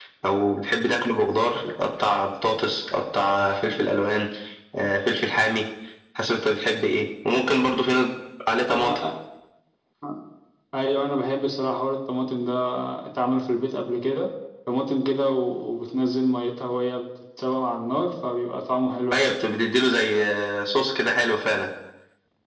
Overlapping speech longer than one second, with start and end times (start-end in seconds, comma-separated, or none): none